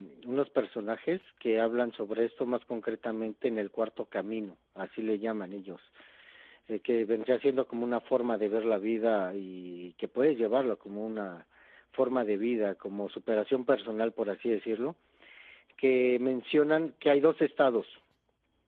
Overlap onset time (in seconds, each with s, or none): none